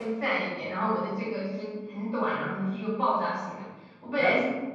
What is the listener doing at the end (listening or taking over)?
listening